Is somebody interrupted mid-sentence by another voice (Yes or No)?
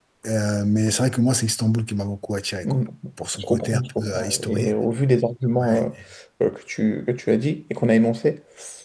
Yes